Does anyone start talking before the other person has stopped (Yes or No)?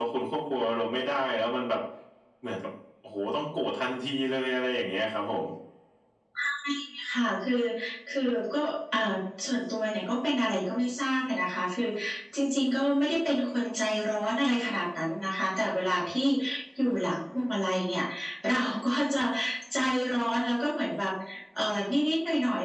No